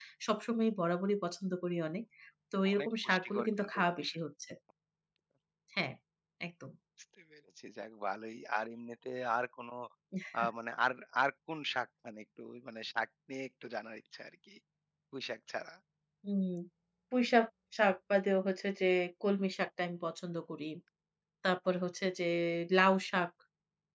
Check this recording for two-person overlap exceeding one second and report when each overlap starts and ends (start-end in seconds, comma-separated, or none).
2.7-4.2